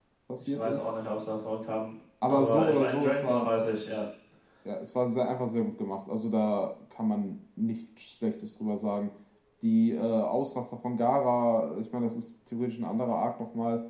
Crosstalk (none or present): present